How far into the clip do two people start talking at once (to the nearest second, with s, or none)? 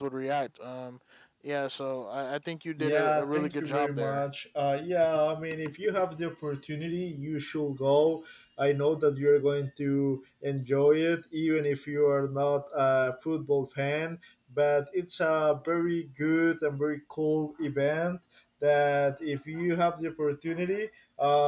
3 s